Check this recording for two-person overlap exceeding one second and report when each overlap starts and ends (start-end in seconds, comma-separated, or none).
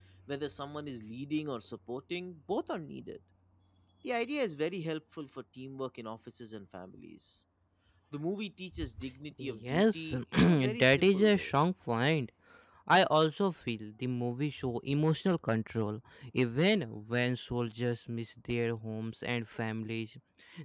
9.4-11.5